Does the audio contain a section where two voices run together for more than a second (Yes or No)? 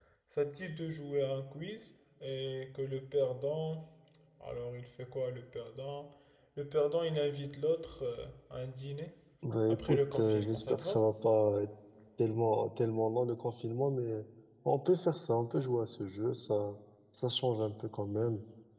Yes